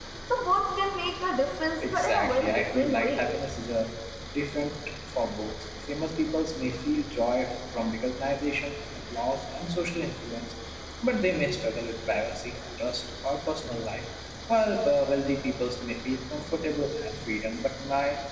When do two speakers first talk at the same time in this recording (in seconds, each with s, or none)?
1.8 s